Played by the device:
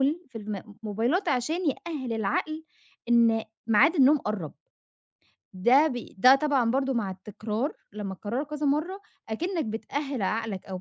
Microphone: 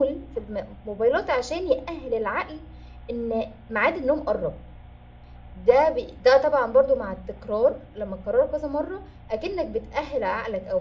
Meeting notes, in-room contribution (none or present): none